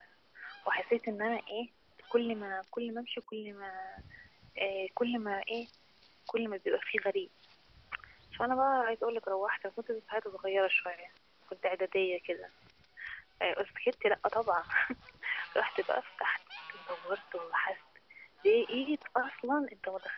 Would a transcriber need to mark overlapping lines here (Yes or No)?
No